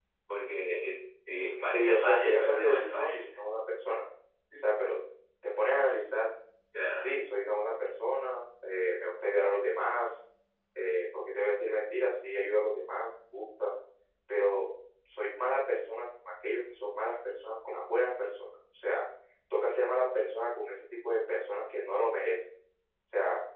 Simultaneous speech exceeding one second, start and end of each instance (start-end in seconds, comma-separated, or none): 1.6-3.3